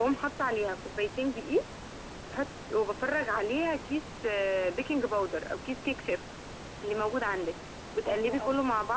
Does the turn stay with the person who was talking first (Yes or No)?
Yes